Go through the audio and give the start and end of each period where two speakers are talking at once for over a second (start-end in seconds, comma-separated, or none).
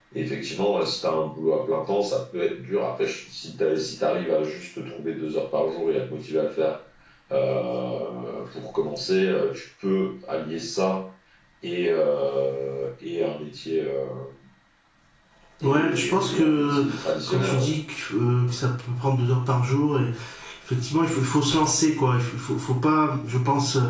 15.6-16.8